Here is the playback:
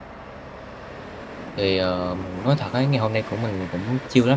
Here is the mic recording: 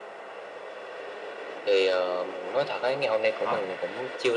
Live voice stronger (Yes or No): No